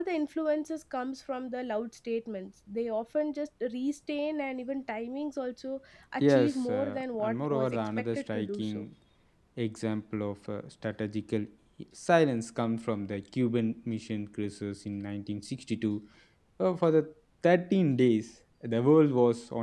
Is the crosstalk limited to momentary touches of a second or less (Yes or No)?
No